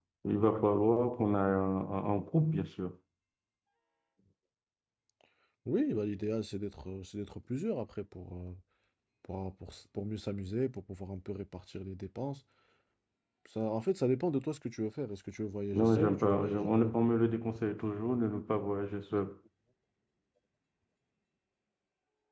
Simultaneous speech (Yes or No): Yes